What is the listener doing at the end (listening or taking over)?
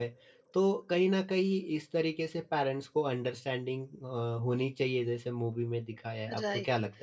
taking over